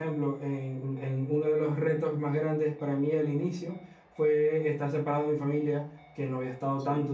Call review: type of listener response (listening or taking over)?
listening